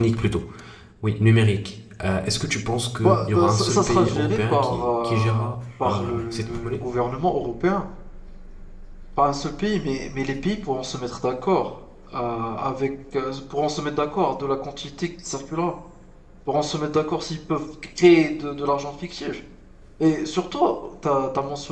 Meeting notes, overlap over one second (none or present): present